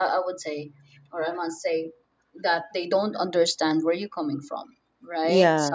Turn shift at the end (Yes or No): No